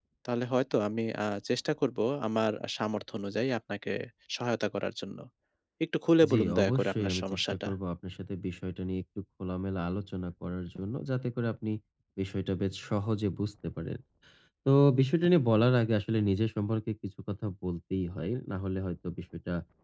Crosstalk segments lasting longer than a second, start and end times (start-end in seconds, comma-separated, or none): 6.3-7.7